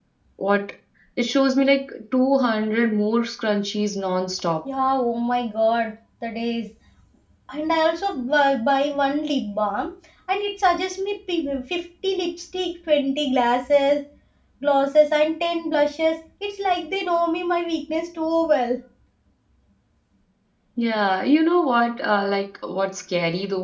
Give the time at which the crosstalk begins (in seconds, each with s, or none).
none